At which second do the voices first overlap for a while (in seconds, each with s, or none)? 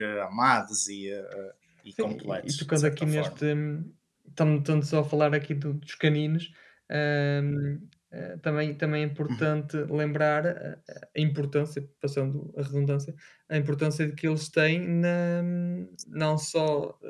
2.0 s